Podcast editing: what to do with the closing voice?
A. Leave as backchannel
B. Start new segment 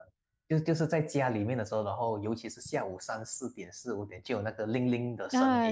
B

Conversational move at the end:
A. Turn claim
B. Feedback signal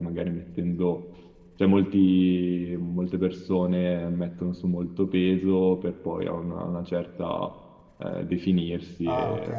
A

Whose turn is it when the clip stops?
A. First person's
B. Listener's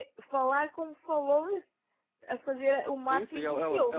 B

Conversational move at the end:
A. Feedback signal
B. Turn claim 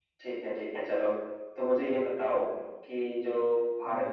A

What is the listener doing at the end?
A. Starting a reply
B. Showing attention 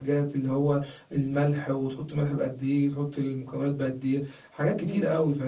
A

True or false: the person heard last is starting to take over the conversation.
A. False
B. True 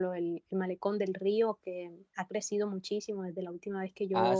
B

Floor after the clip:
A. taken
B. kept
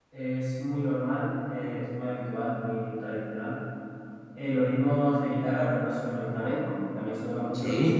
B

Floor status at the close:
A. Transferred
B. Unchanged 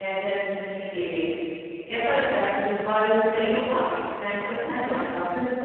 A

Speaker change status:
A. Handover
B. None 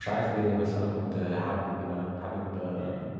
A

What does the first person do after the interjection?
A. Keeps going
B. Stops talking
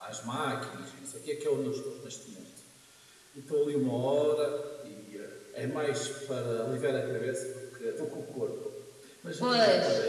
A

